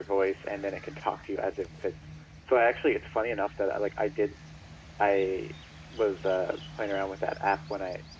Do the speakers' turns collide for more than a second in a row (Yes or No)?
No